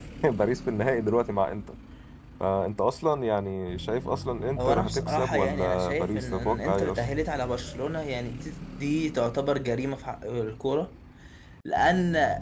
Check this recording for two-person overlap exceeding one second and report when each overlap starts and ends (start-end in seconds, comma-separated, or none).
4.6-7.0